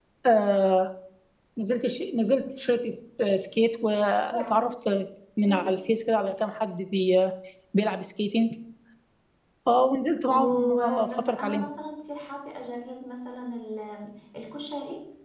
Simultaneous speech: Yes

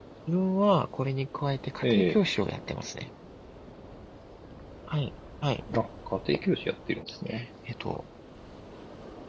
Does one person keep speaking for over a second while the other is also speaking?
No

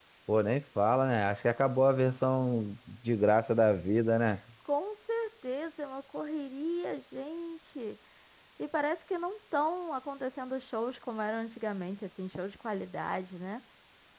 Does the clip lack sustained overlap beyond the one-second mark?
Yes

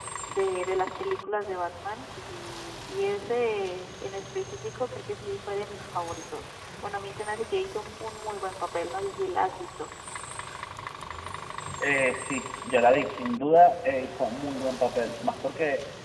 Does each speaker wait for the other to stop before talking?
Yes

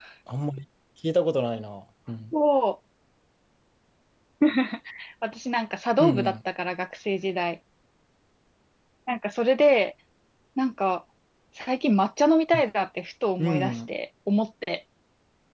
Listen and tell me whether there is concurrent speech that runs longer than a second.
No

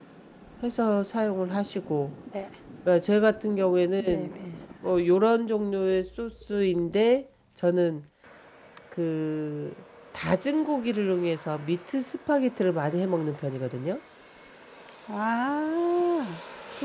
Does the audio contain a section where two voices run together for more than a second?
No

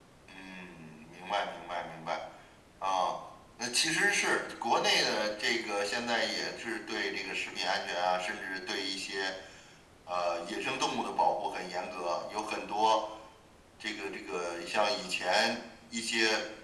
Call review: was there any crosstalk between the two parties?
No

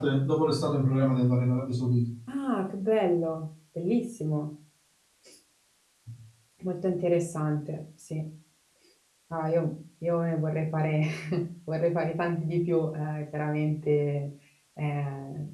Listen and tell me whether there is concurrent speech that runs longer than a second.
No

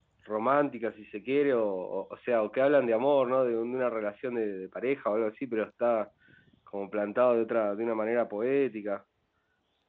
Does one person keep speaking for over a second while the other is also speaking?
No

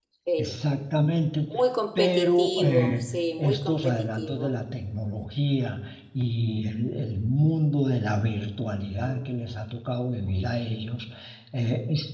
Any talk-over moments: Yes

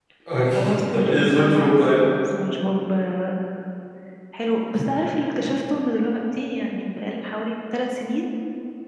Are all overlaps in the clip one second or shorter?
No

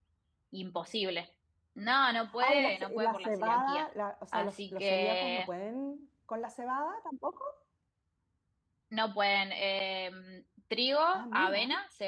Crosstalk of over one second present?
Yes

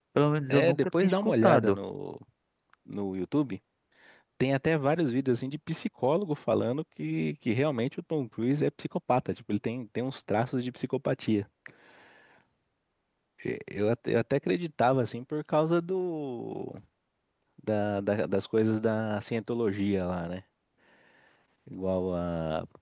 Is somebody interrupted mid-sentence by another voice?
Yes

